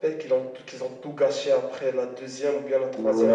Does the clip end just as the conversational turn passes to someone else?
Yes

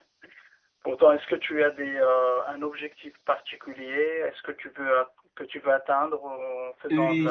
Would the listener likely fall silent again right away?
No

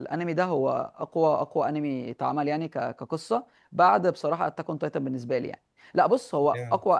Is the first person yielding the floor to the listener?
No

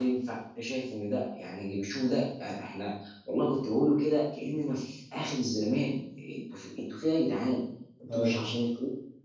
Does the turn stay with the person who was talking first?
Yes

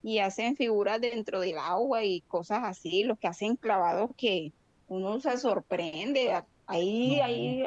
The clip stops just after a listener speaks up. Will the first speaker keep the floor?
Yes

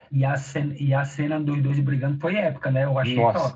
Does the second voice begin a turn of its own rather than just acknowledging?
Yes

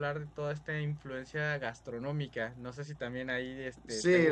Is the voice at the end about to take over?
Yes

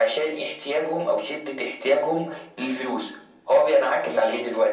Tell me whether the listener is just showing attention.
Yes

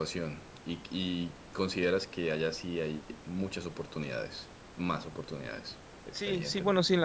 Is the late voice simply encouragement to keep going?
No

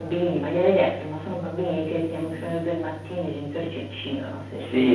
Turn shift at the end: Yes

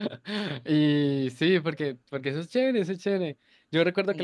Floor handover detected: No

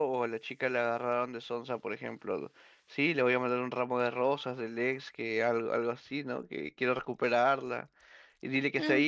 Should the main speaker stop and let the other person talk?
Yes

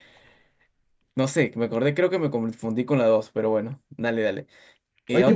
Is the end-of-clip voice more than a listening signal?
Yes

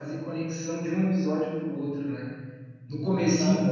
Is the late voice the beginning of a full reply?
No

